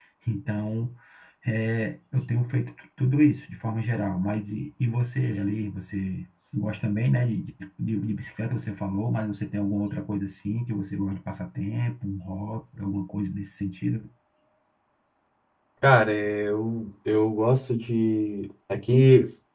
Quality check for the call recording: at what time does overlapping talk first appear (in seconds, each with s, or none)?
none